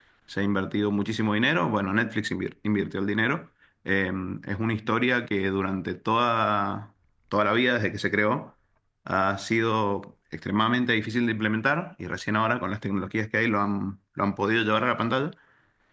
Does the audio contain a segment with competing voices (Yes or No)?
No